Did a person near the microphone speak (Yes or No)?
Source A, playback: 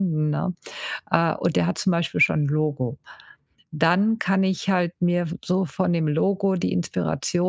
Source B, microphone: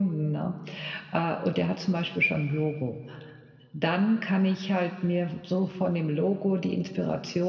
No